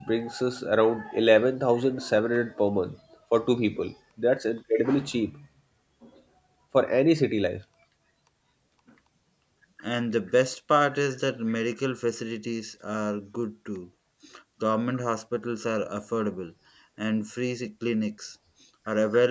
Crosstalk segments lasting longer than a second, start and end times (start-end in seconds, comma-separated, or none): none